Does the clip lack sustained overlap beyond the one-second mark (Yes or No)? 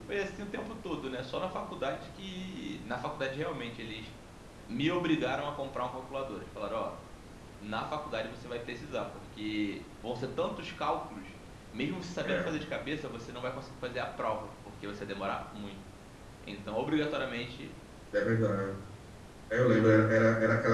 Yes